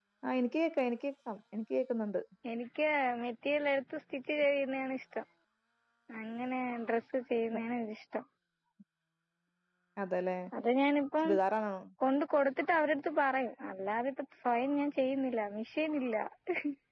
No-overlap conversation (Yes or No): Yes